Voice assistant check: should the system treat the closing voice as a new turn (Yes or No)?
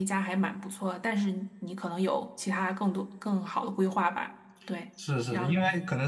Yes